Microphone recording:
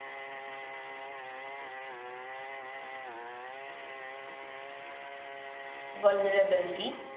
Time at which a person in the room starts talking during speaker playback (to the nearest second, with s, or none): 6 s